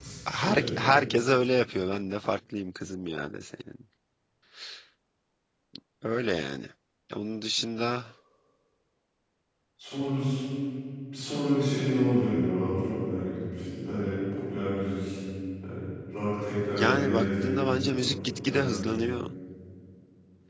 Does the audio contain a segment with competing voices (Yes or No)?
Yes